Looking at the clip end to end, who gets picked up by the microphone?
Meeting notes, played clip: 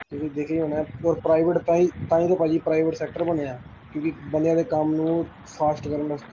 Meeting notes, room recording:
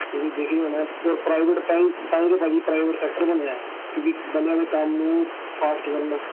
echo only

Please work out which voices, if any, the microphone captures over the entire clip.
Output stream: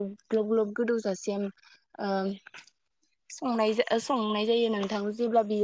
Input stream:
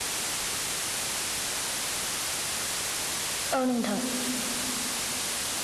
user only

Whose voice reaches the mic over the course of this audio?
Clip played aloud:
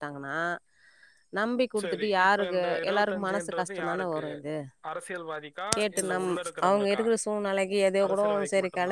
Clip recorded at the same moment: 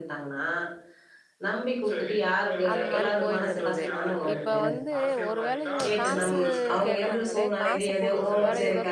both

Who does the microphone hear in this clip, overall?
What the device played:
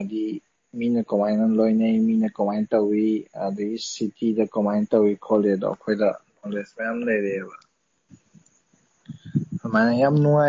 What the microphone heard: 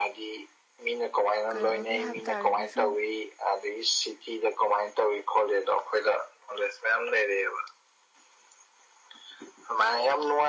both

